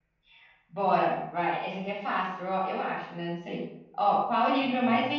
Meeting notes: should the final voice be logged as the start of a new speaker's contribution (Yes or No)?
No